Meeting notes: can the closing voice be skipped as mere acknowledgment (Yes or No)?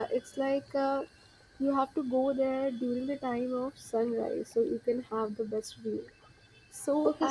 No